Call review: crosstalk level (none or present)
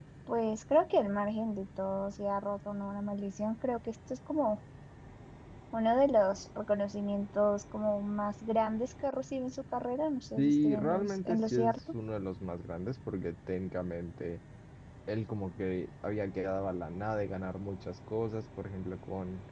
present